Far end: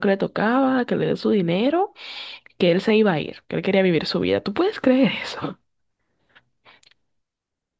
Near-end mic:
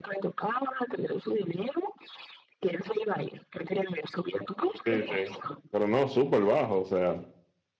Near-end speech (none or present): present